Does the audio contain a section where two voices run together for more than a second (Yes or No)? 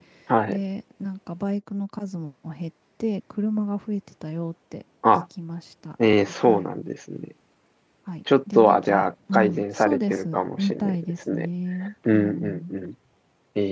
Yes